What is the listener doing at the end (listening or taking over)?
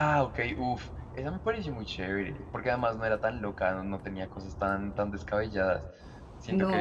taking over